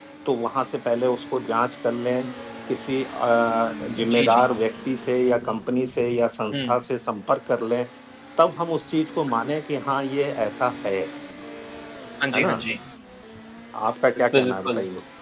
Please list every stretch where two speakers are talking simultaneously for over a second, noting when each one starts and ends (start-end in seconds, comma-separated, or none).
none